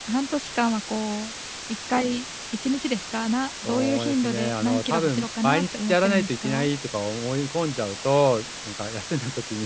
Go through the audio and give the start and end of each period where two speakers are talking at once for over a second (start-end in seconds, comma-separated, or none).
3.6-6.7